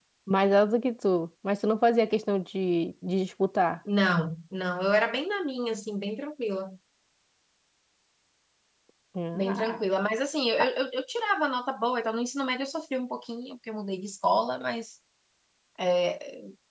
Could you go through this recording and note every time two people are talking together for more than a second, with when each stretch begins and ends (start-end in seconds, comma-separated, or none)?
none